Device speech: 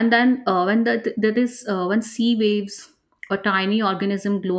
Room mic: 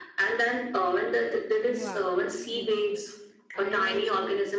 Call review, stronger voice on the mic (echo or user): echo